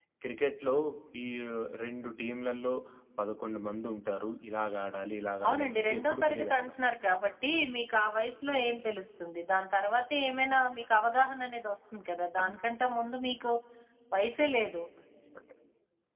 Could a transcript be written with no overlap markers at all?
No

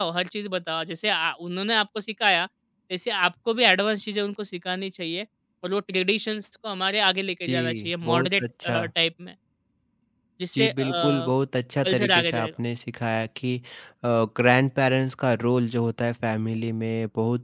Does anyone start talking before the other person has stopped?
Yes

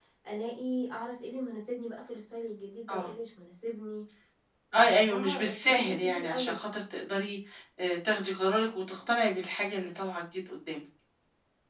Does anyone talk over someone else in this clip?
Yes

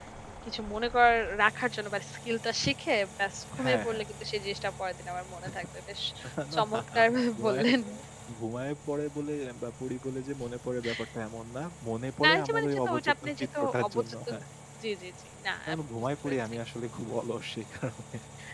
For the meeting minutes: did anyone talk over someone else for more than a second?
Yes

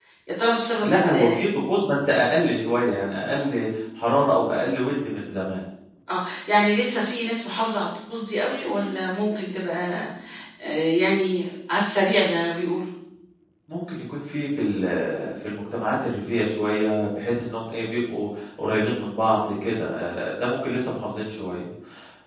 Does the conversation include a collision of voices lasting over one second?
No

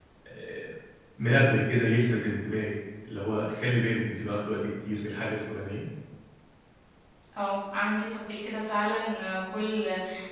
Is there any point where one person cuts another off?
No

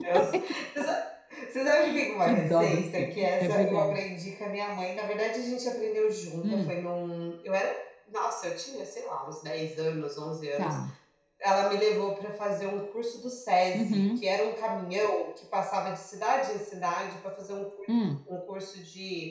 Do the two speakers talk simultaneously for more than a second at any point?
Yes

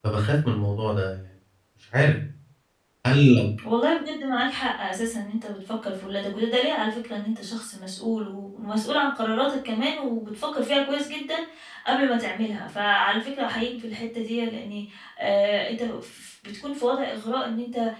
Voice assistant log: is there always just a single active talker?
Yes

